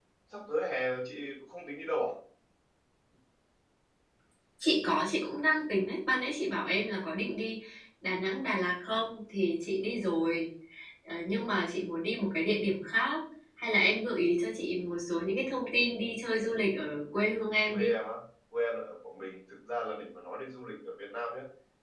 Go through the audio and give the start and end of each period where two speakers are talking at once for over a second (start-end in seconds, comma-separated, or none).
none